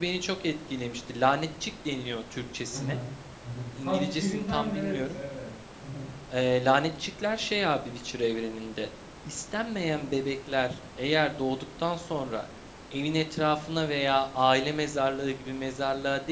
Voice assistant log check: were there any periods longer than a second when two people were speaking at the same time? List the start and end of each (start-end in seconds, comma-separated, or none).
3.8-5.2